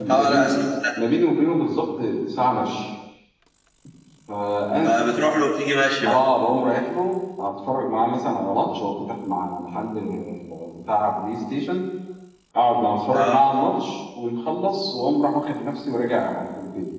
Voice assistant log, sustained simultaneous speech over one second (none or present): none